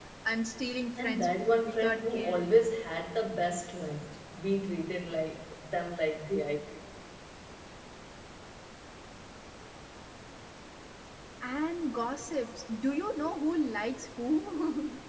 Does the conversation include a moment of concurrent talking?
Yes, from 1.0 s

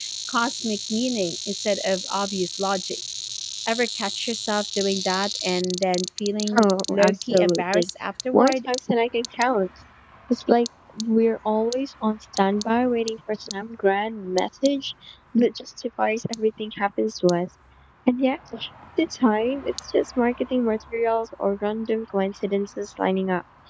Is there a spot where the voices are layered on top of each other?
Yes, from 6.5 s

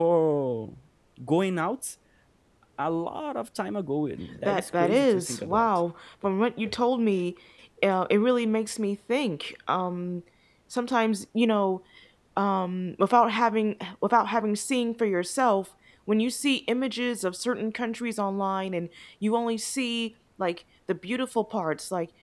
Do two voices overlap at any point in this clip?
Yes, from 4.3 s

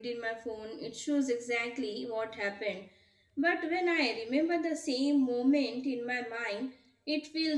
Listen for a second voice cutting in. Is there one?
No

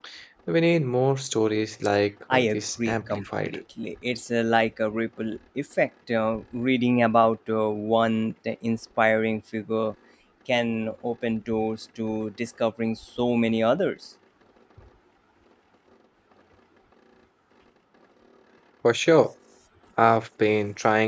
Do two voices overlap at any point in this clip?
Yes, from 2.3 s

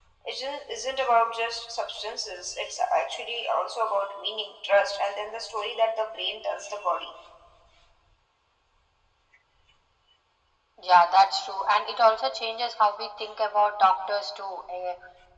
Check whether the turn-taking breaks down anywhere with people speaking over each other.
No

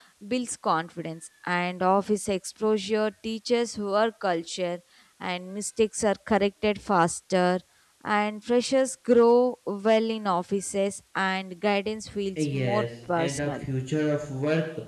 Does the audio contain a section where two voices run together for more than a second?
Yes, from 12.4 s

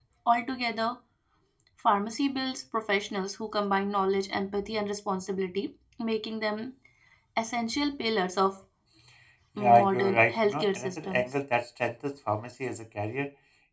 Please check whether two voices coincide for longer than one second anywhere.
Yes, from 9.6 s

